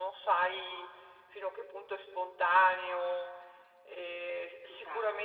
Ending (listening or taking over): listening